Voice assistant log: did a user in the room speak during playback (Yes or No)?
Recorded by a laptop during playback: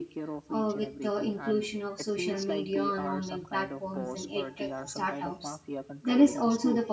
Yes